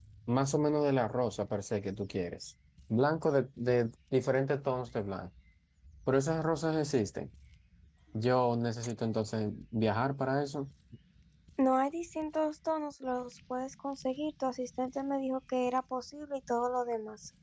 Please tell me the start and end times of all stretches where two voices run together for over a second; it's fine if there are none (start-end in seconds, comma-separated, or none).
none